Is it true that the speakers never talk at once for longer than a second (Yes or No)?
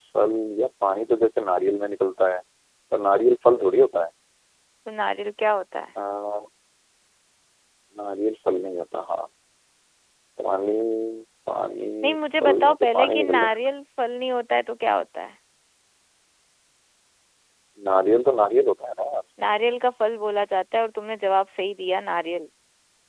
No